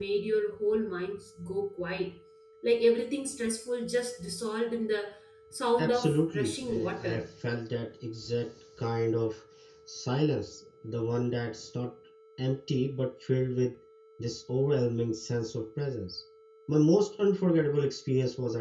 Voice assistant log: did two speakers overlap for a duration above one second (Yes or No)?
Yes